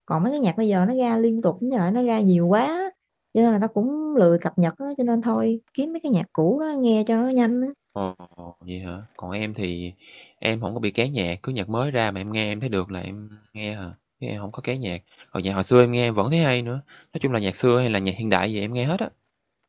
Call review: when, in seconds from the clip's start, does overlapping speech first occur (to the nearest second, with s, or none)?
none